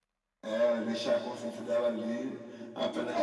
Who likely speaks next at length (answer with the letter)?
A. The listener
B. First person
A